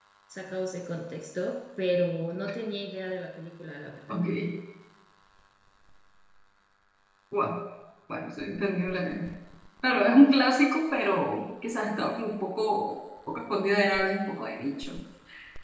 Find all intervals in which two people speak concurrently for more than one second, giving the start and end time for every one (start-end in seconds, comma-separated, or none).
none